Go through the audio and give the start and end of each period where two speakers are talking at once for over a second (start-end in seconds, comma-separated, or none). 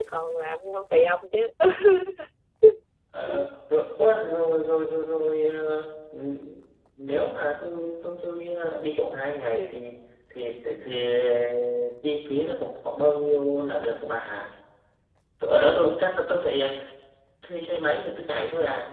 none